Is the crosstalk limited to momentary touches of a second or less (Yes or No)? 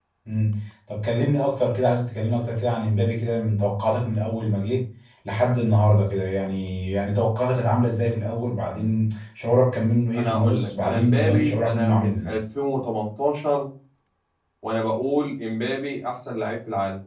No